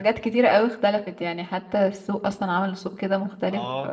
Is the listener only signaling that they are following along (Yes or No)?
No